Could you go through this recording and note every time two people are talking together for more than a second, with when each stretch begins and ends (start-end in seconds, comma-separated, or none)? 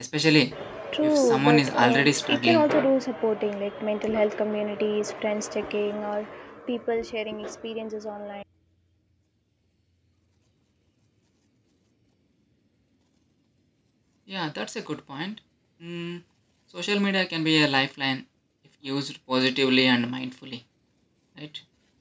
1.0-2.7